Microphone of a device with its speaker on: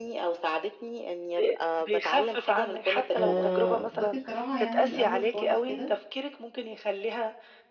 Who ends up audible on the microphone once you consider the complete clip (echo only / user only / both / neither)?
both